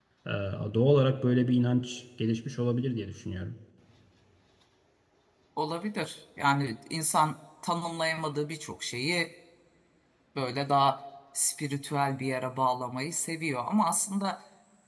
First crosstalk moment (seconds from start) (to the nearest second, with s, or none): none